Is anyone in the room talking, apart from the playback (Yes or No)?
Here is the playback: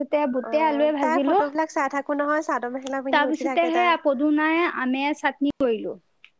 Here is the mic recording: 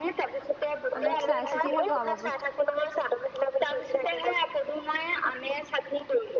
Yes